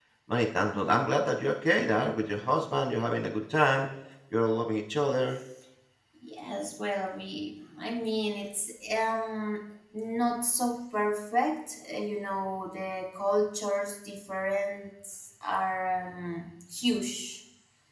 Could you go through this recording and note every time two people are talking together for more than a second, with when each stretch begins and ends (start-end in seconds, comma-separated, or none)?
none